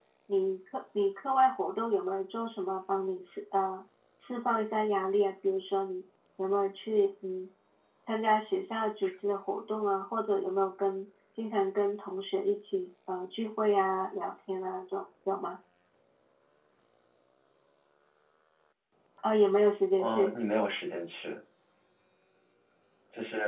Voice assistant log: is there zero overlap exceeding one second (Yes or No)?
Yes